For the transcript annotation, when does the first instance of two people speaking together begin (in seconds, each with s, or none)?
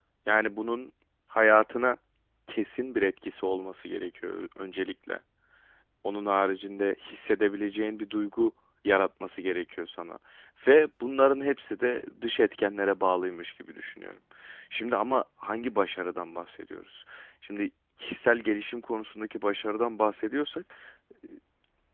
none